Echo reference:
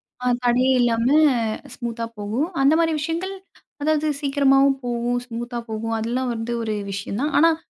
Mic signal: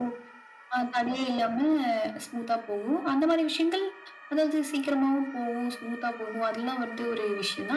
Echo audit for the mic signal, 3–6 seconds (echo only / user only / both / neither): echo only